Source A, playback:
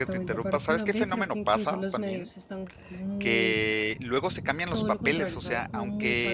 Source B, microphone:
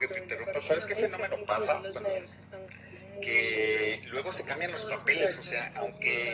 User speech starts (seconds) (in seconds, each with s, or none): none